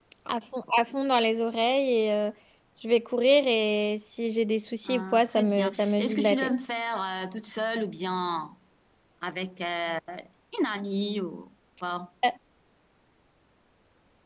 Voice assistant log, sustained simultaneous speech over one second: present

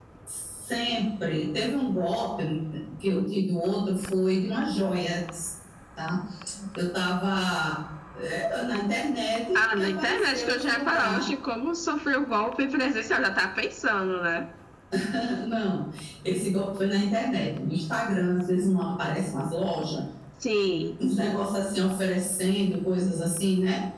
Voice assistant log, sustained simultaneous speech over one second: present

